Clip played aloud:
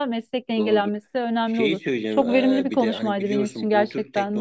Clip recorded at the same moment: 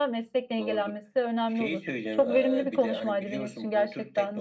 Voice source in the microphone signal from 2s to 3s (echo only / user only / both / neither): echo only